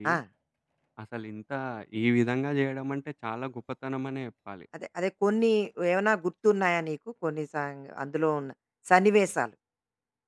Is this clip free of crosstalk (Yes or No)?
Yes